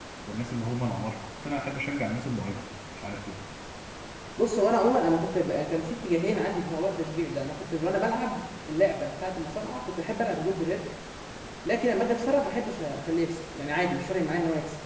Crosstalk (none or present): none